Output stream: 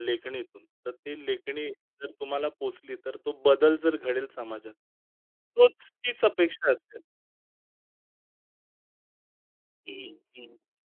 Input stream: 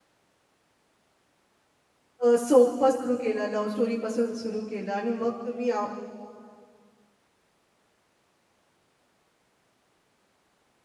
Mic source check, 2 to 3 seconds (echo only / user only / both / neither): user only